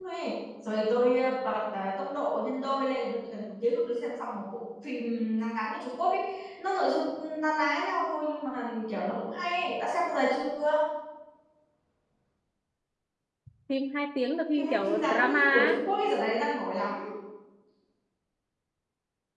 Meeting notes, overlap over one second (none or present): present